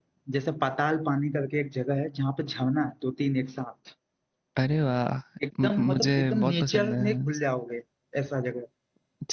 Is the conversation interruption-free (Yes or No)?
No